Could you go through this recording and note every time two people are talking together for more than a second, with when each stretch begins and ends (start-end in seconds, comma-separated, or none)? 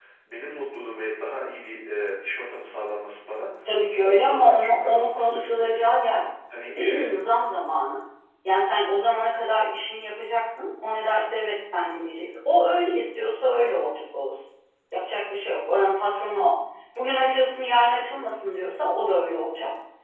4.0-5.9